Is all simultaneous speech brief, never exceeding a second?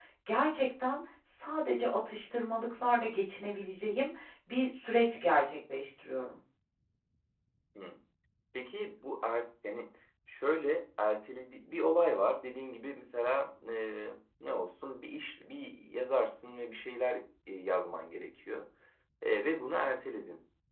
Yes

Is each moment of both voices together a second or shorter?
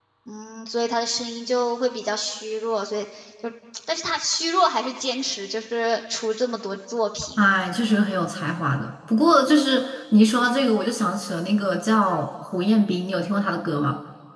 Yes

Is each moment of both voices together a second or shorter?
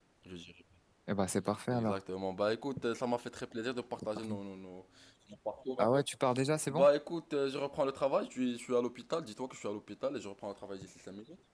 Yes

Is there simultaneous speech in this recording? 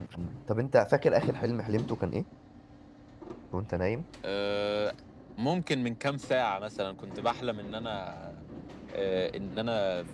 No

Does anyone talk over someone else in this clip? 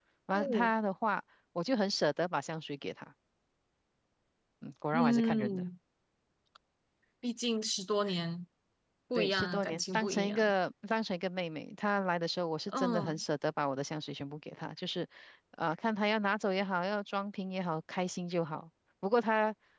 Yes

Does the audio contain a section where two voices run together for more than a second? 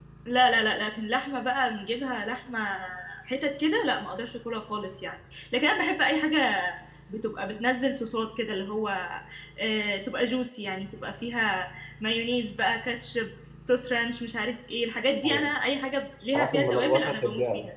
Yes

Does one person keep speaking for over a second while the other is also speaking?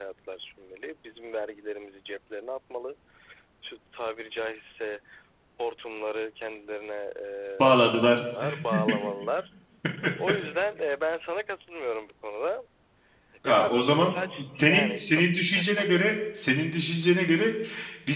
Yes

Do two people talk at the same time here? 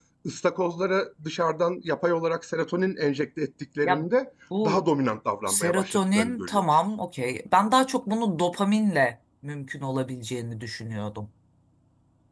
Yes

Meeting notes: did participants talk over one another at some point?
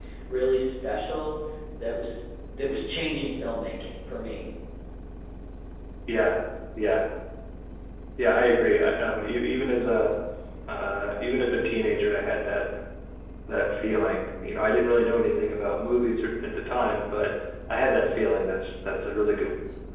No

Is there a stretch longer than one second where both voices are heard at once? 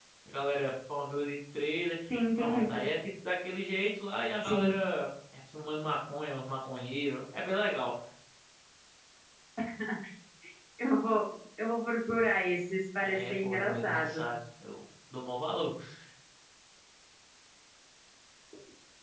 Yes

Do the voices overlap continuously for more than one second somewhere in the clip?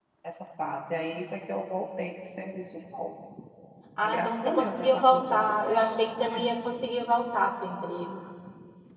Yes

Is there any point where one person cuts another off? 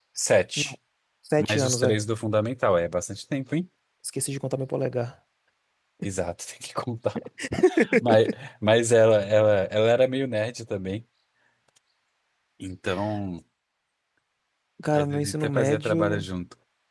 Yes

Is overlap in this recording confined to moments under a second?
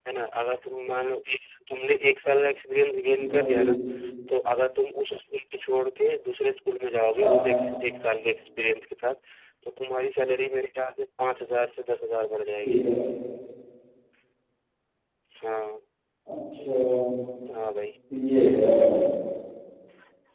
Yes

